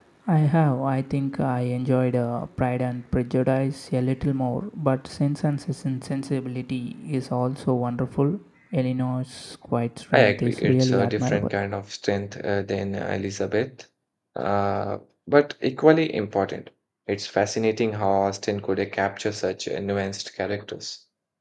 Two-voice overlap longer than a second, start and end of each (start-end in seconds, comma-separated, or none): 10.1-11.5